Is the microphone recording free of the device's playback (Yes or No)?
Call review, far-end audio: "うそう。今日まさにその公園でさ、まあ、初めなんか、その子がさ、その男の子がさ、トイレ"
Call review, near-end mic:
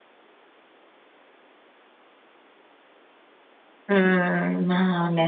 Yes